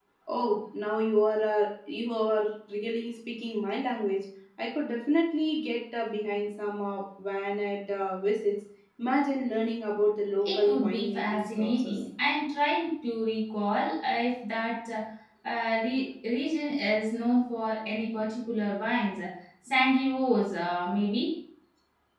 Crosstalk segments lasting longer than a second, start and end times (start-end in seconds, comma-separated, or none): 10.4-11.9